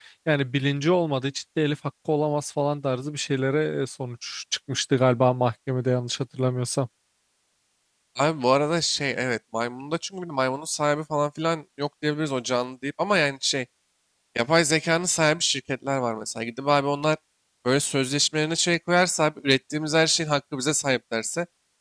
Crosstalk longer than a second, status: none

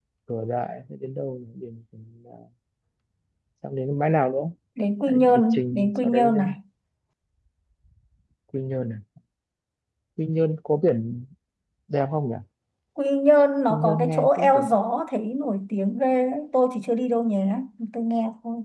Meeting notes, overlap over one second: present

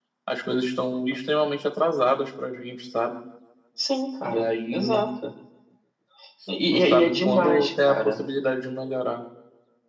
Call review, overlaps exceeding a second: present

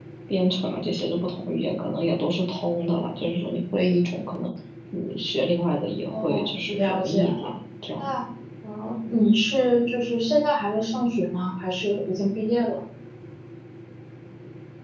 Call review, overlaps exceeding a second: present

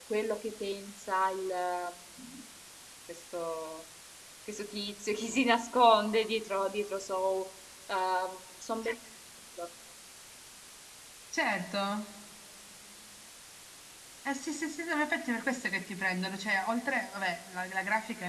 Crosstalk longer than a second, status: none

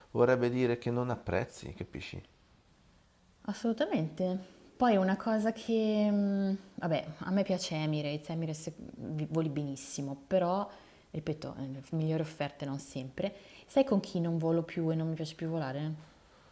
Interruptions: none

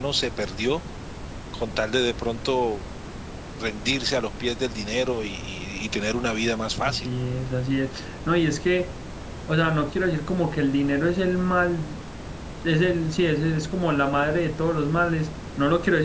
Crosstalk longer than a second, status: none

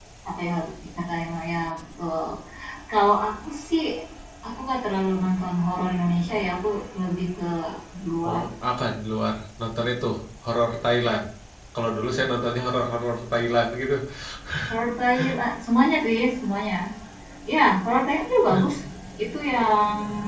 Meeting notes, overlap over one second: none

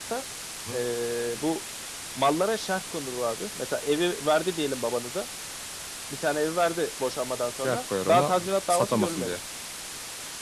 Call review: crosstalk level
present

